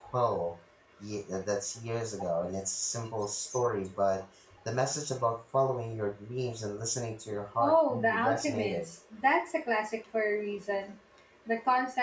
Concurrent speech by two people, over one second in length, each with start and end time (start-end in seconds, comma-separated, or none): 7.6-8.8